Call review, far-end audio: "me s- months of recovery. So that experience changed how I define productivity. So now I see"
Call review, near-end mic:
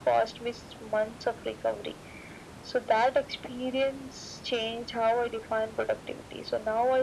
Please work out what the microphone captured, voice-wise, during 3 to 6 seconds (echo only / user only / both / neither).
echo only